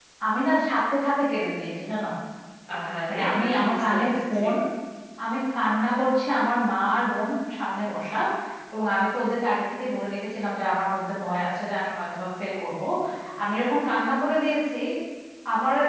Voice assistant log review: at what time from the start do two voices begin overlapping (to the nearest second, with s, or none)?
3 s